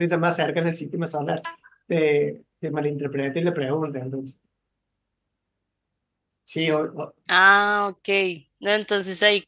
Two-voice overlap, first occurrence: none

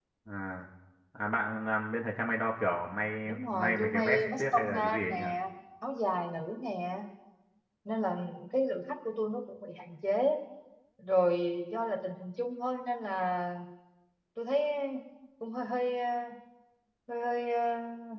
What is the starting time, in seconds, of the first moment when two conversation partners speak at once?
3.5 s

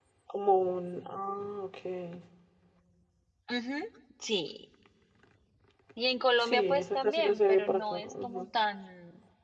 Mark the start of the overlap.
6.4 s

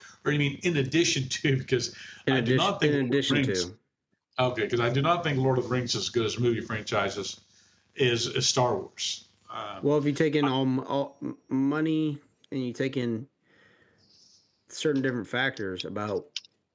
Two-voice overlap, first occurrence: 2.3 s

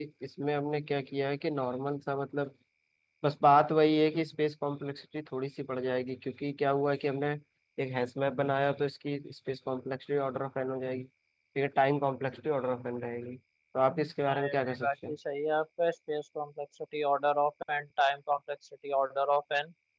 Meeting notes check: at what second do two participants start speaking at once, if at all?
13.9 s

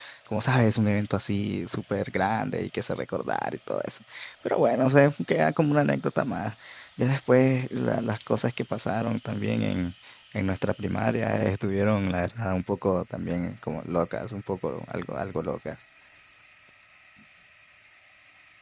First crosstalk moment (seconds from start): none

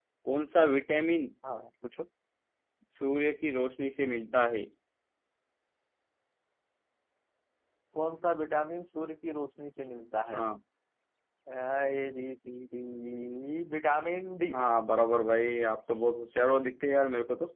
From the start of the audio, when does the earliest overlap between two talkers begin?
none

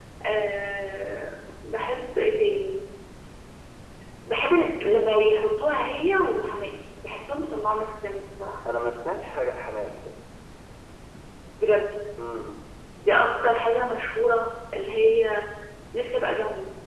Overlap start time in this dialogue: none

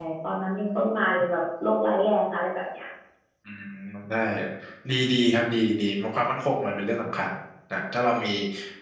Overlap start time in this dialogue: none

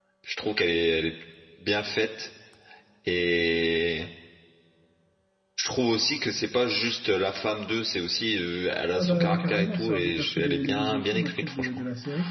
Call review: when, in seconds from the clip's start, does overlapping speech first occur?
9.0 s

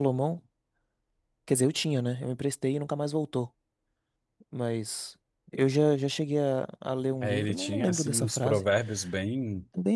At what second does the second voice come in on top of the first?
7.2 s

